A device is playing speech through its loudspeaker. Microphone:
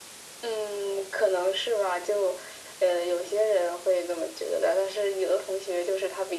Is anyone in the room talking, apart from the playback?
No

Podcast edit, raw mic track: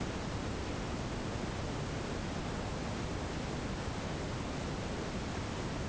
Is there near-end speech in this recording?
No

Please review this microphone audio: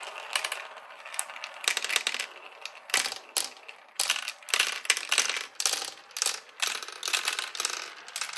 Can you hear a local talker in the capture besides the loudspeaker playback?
No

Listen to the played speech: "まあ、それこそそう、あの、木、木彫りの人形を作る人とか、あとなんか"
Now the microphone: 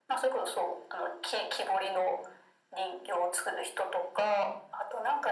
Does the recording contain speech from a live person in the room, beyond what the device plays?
No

